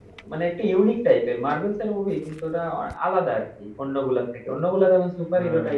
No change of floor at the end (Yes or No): Yes